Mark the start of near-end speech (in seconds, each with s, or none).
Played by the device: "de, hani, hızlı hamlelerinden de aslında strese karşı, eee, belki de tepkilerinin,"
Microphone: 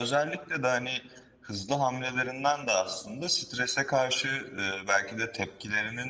none